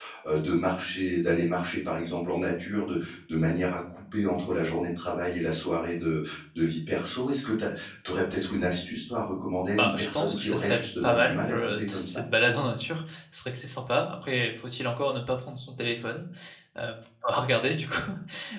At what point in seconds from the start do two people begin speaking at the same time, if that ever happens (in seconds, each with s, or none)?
9.8 s